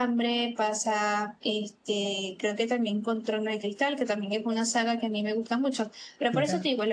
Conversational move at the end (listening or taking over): listening